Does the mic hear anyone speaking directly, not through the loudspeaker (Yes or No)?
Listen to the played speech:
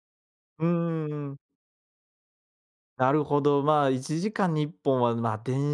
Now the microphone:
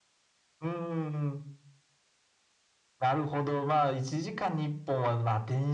No